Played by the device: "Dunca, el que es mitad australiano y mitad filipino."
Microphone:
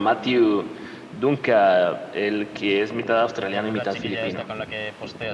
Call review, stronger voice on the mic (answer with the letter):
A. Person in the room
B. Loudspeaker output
B